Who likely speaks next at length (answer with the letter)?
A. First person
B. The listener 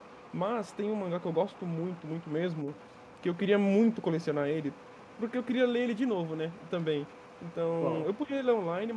A